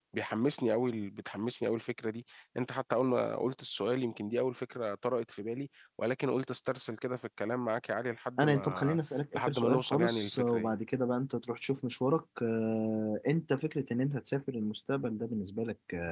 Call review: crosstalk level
present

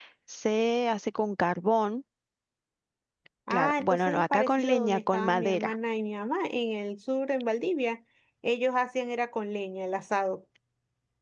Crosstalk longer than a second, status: present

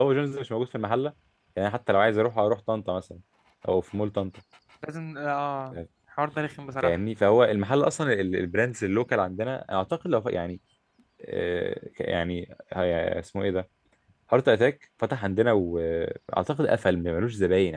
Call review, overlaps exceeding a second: none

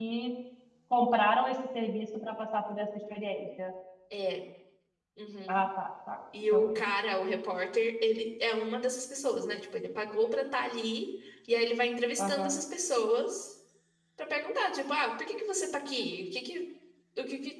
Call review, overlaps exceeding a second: none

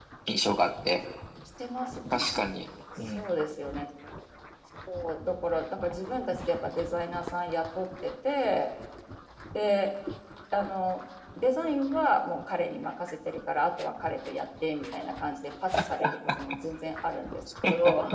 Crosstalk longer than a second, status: none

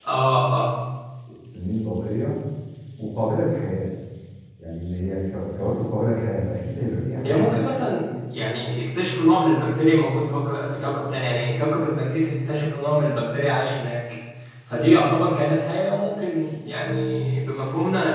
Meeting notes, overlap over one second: none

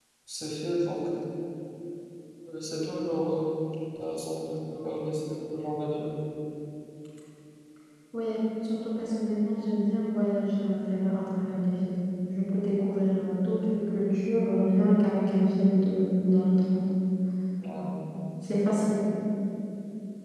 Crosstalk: none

